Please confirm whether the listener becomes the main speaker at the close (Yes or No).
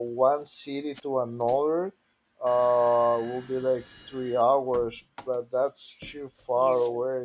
Yes